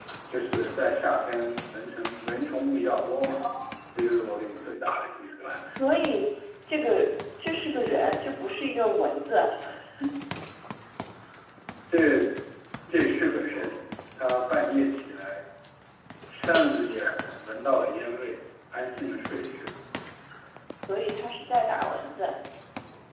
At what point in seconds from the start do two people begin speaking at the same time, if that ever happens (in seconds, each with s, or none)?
none